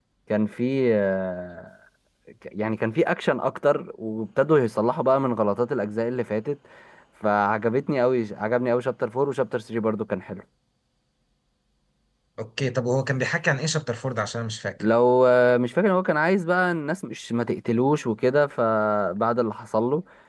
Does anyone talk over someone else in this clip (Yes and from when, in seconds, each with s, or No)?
No